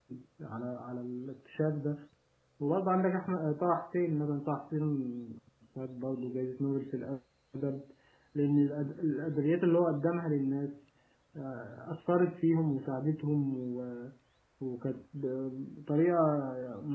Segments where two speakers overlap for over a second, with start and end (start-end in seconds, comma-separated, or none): none